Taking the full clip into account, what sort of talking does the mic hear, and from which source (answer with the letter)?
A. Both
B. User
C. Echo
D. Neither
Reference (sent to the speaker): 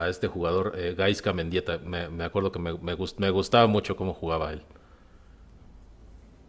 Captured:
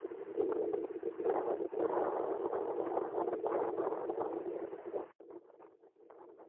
D